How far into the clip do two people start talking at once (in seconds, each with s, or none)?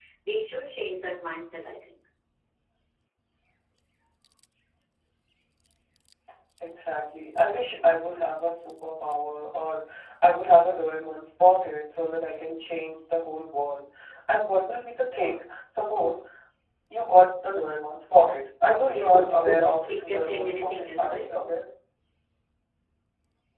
18.8 s